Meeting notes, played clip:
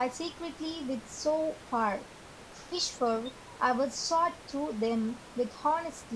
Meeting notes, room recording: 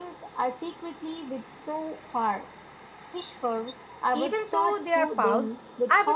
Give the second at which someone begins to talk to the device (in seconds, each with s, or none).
4.1 s